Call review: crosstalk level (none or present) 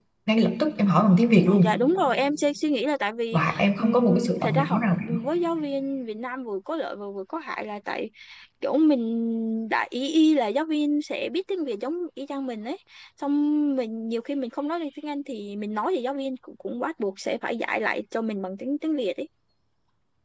present